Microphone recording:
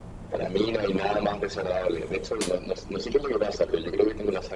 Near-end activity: none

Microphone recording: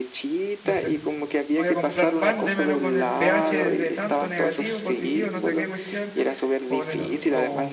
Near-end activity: present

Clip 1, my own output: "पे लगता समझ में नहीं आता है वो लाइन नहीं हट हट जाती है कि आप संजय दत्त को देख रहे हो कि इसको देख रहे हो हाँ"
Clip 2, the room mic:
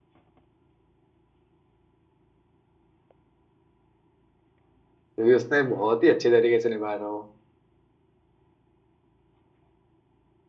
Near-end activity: present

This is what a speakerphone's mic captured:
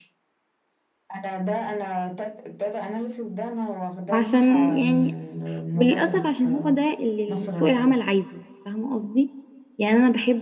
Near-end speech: present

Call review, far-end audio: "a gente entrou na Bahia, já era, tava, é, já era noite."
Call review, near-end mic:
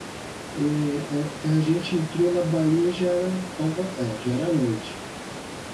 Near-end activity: none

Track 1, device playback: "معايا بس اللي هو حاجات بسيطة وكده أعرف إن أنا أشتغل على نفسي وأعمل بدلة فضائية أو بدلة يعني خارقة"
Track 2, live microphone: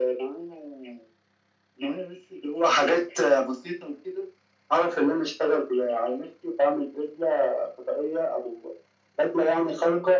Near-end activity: none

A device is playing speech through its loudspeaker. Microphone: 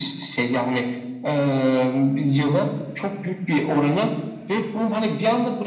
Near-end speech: none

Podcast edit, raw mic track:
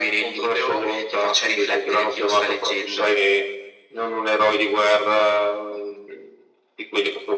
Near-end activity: none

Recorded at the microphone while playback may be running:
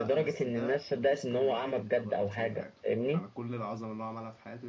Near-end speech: present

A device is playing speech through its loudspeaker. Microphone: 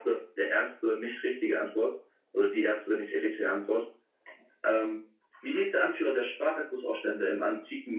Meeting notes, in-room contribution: none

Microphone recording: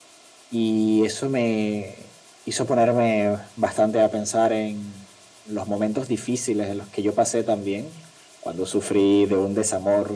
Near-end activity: none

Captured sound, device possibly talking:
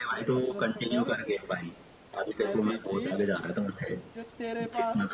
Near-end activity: present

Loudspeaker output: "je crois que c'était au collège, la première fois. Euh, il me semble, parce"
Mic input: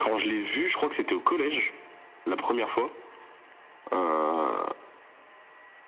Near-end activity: none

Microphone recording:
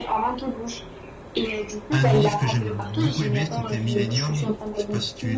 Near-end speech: present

